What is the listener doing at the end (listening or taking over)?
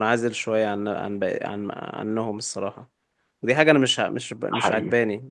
listening